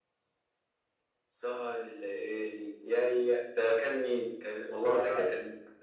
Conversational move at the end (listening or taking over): taking over